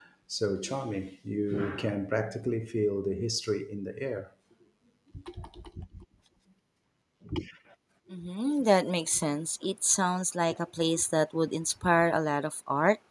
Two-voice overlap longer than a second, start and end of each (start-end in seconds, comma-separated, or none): none